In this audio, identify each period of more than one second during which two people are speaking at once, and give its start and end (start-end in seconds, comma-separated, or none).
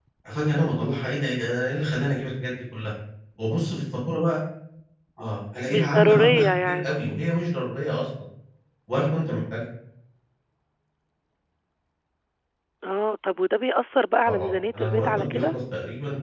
5.7-7.0, 14.3-15.5